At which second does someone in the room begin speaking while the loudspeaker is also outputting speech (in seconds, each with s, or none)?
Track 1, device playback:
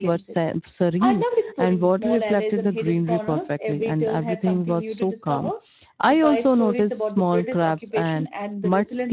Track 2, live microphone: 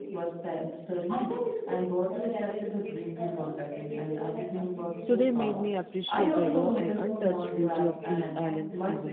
5.0 s